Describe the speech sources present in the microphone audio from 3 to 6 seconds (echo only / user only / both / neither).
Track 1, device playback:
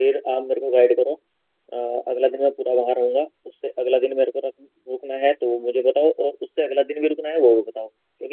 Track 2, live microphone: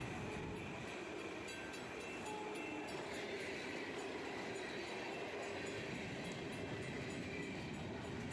neither